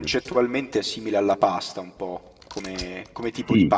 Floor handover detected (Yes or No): Yes